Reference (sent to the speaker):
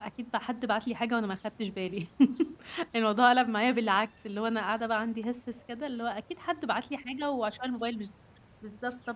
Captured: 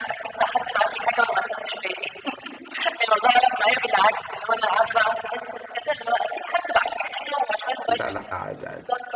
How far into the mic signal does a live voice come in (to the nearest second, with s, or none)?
8 s